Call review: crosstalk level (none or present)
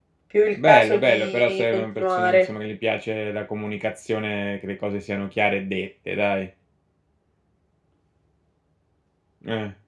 present